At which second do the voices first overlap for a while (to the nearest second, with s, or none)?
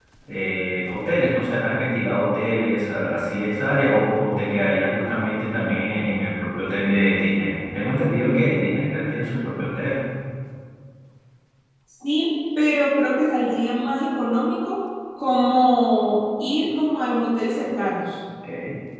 none